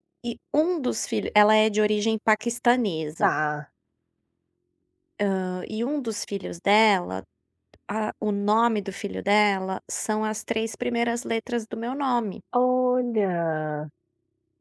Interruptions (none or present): none